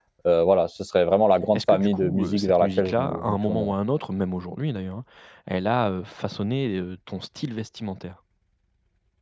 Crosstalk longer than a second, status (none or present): present